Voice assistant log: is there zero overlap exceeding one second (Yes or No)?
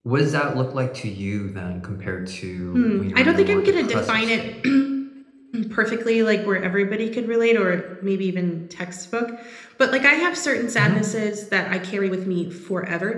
No